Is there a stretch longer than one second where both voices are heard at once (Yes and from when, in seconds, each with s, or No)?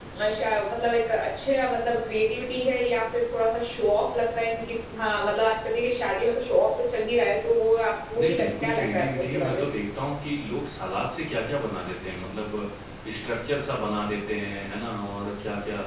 Yes, from 8.2 s